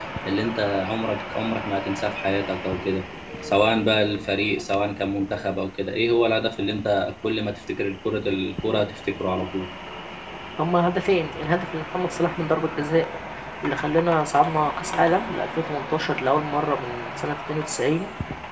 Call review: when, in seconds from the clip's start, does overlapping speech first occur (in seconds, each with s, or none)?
none